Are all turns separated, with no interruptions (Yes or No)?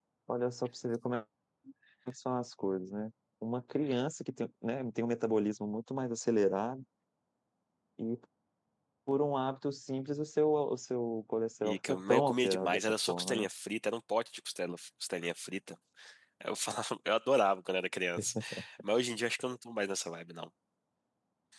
No